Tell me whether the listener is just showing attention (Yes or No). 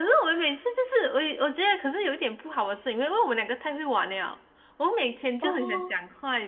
Yes